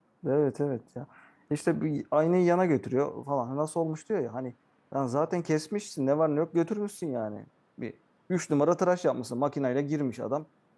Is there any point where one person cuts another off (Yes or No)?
No